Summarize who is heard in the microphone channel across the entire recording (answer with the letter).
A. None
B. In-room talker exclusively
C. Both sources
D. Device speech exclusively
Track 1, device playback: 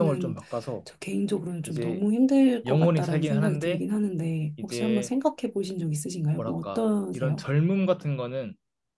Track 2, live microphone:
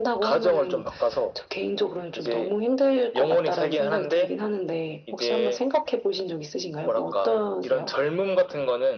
D